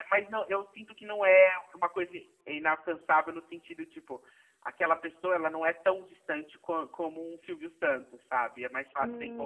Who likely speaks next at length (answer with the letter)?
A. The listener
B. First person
A